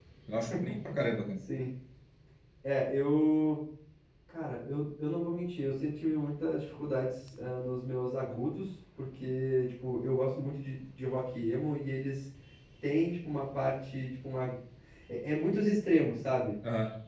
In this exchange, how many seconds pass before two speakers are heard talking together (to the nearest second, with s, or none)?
none